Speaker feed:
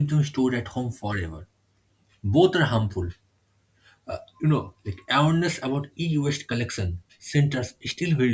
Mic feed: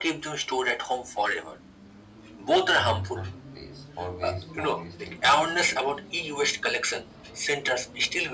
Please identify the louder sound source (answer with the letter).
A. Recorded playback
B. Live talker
A